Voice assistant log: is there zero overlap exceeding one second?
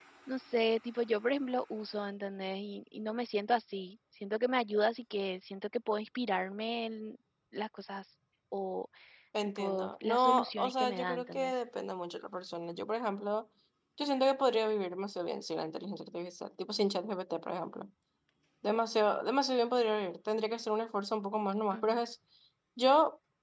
No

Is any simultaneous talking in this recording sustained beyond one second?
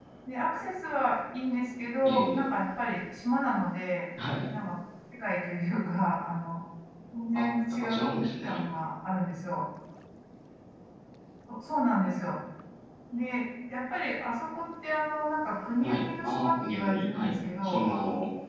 Yes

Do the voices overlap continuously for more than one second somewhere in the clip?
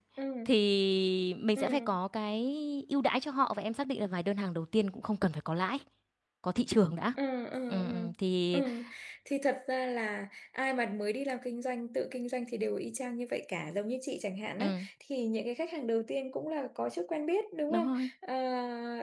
No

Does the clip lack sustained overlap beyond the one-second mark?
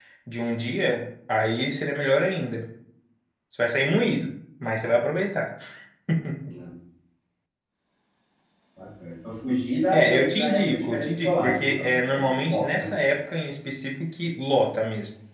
No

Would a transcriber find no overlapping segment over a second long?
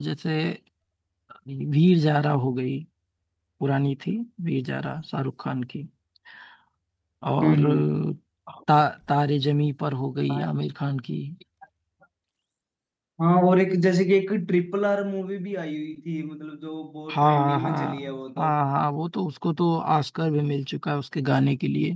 No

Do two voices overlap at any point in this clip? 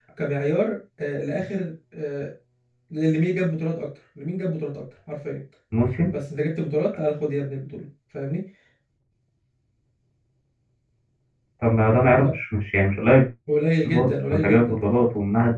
Yes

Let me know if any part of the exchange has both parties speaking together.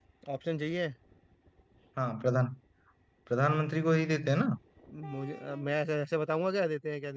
No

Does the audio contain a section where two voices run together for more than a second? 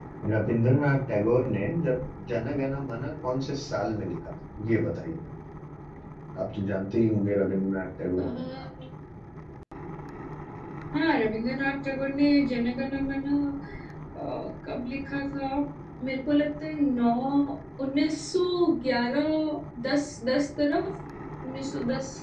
No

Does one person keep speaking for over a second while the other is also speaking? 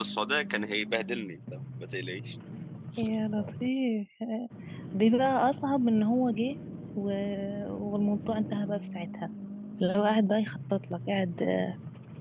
No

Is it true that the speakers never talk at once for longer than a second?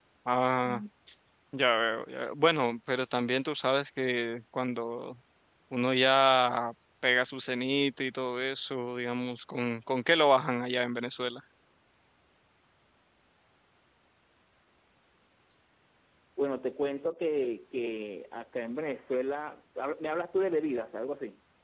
Yes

